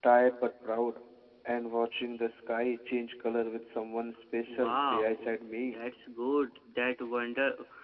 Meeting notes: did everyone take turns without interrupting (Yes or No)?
No